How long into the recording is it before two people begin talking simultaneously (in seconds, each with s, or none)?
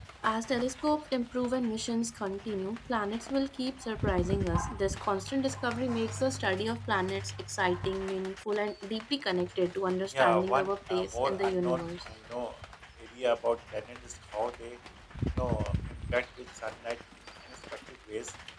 10.1 s